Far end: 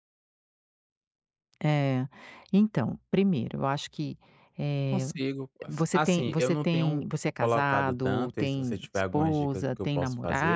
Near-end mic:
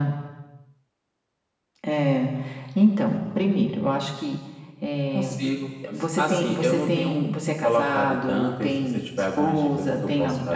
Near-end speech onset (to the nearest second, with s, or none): none